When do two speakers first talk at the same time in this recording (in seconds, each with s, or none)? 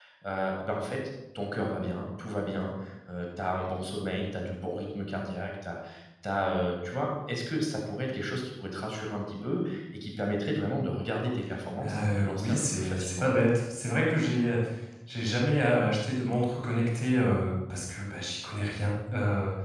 11.8 s